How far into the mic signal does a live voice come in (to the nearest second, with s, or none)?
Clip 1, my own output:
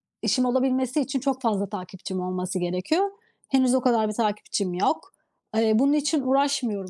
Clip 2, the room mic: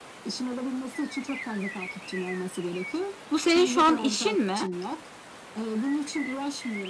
3 s